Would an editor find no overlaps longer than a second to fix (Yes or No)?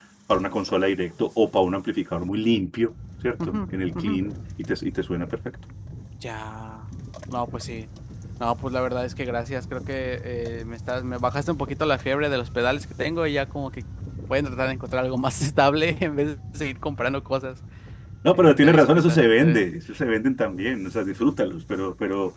No